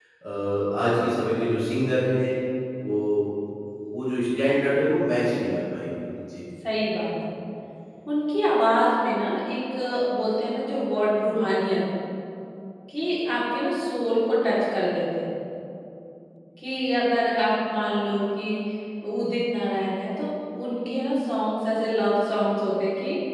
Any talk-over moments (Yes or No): No